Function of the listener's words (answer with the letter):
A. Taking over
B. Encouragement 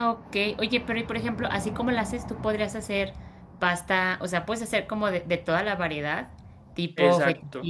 B